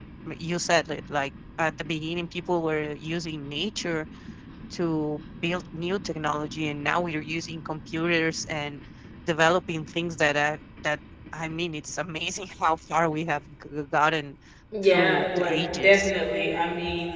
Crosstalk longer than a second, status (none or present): present